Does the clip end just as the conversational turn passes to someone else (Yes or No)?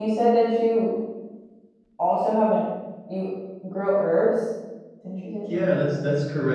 Yes